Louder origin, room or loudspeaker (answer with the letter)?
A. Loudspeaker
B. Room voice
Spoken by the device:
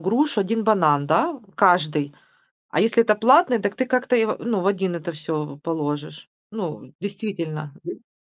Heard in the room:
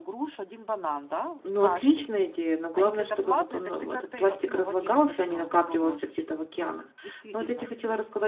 B